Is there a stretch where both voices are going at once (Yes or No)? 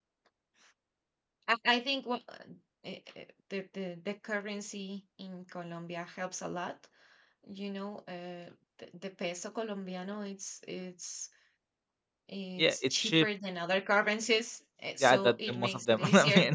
Yes